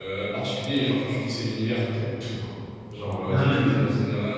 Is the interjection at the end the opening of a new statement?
No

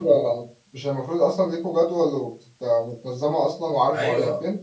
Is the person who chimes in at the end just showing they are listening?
No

